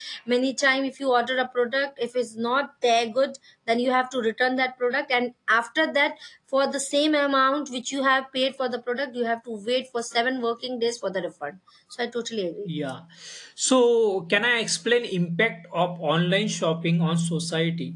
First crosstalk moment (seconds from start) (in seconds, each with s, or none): none